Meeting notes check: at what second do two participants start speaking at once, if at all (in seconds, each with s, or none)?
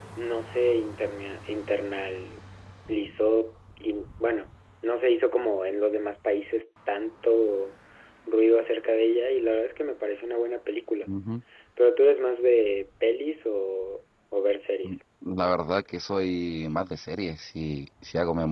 none